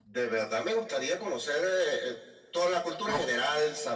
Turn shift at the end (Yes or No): No